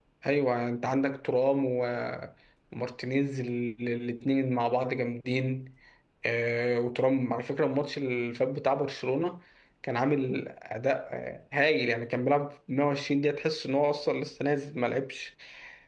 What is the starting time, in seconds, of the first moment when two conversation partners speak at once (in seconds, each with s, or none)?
none